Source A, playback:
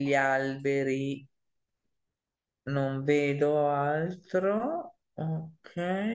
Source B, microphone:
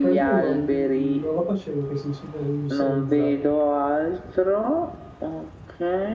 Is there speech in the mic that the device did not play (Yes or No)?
Yes